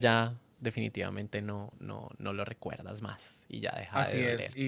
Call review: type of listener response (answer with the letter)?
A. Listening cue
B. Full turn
B